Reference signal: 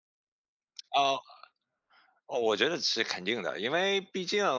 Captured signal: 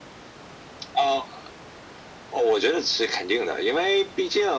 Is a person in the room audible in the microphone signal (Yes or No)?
No